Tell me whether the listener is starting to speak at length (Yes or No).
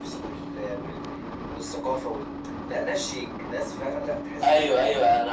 Yes